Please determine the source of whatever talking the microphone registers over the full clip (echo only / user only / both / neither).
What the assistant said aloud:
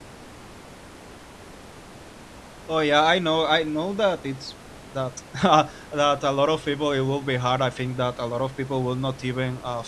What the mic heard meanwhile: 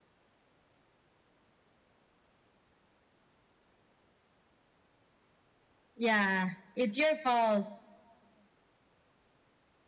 user only